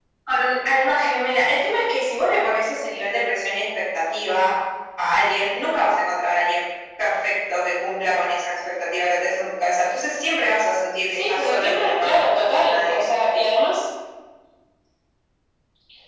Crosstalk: present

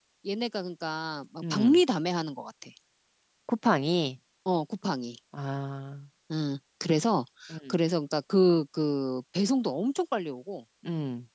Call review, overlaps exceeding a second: none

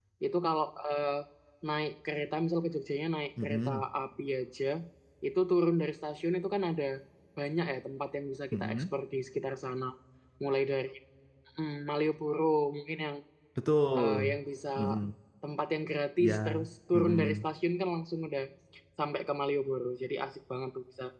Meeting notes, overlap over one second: present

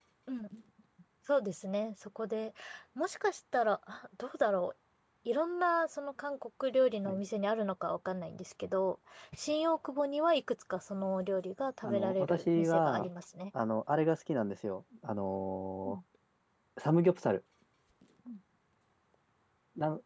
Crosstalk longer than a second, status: present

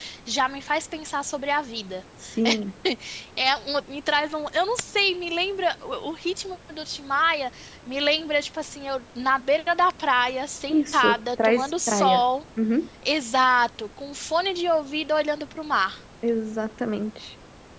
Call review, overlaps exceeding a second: present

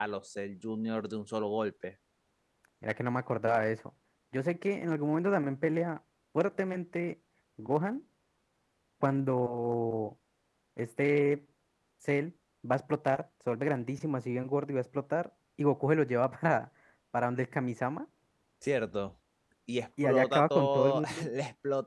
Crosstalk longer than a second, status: present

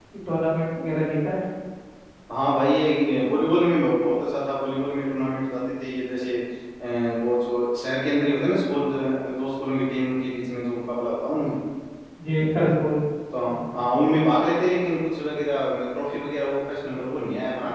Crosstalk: none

